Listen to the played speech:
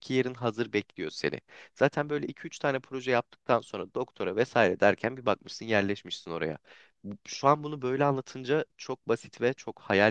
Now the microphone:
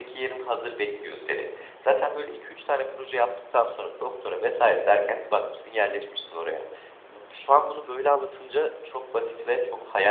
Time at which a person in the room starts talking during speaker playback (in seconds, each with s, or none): none